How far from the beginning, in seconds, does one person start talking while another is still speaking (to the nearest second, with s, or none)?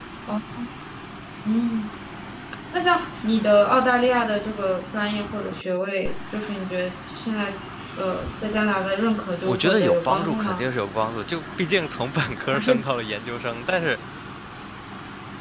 9 s